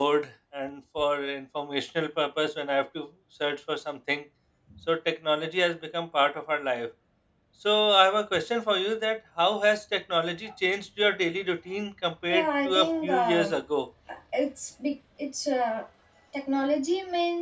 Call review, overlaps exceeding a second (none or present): present